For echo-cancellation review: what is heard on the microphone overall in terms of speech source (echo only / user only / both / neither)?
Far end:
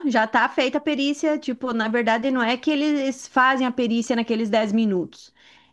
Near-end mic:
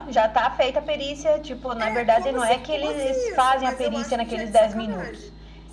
both